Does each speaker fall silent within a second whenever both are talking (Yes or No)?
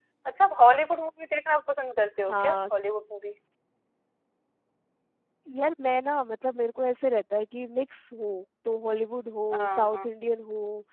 Yes